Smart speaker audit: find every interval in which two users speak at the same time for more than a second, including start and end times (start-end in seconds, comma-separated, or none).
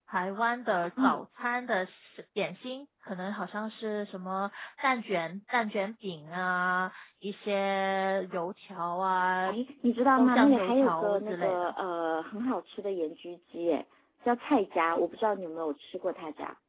10.2-11.7